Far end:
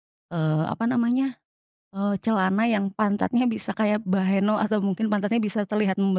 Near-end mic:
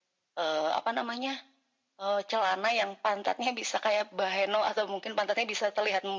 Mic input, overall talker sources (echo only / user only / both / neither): echo only